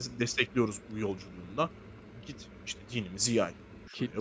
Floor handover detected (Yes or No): Yes